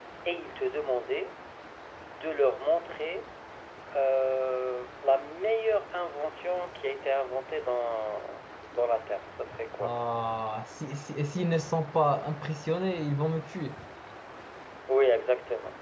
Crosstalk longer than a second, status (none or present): none